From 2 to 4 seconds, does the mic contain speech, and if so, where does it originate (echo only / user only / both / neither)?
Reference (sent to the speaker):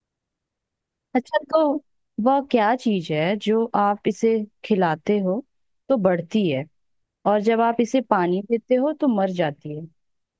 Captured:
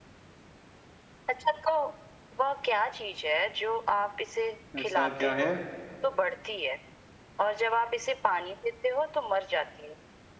echo only